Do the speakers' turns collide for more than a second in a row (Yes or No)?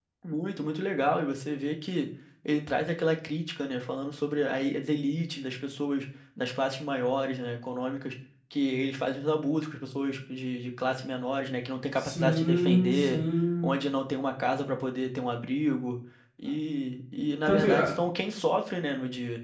Yes